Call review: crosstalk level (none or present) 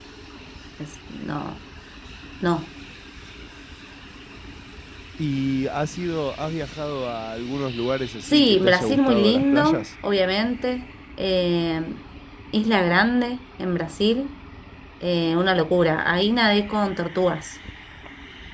present